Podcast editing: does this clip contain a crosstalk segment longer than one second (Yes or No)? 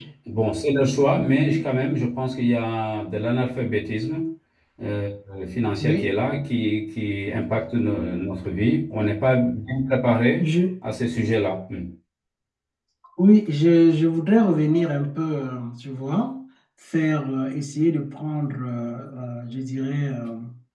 No